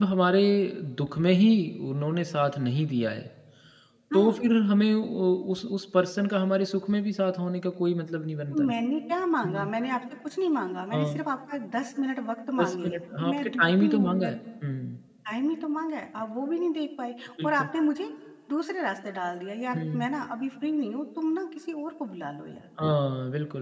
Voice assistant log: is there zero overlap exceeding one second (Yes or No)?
No